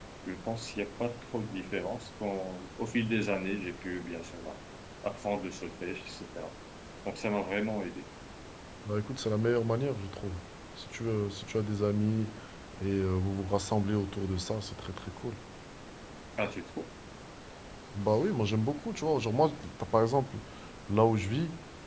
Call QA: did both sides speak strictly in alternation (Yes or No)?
Yes